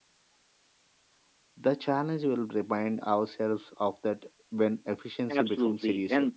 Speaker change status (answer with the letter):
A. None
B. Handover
B